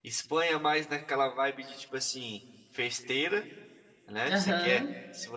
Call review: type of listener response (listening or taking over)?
listening